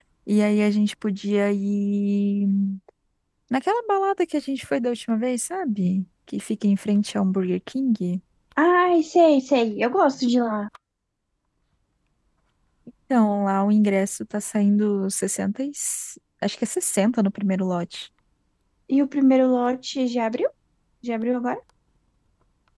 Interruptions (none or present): none